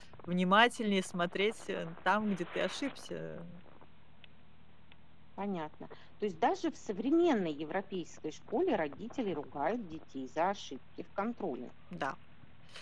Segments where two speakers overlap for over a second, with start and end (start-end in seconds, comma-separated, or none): none